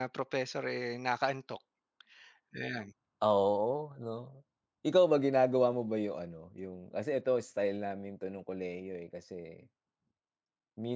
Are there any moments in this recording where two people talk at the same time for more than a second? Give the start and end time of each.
none

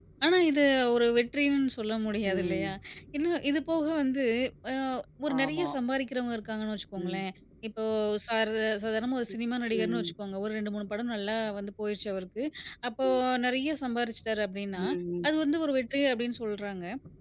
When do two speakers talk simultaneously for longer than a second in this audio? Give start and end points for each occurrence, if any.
none

